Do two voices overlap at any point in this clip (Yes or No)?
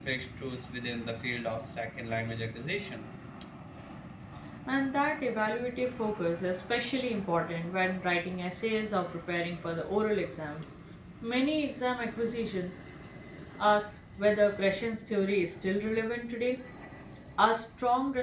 No